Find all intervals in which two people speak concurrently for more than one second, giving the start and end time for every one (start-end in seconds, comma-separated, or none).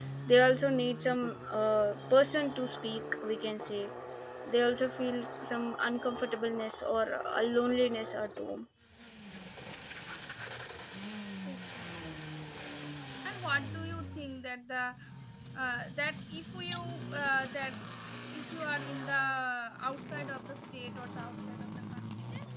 none